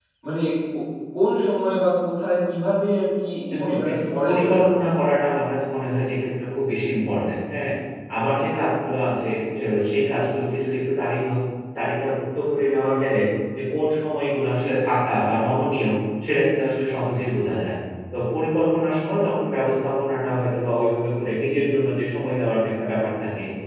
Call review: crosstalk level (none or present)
present